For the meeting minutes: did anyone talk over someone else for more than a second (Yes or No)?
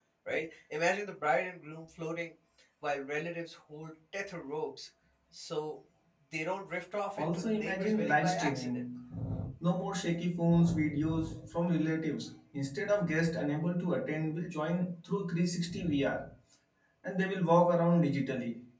Yes